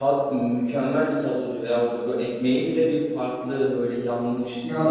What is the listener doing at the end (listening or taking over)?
taking over